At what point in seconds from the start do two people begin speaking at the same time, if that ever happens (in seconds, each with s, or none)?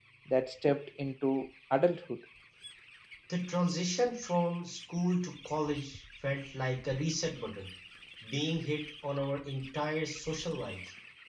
none